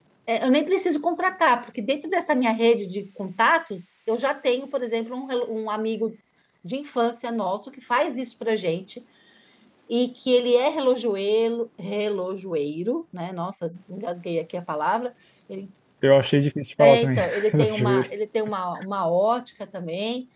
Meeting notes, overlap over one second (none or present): present